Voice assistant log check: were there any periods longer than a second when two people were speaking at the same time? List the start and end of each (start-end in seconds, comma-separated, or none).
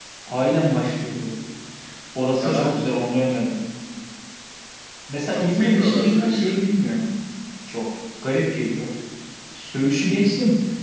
5.3-6.6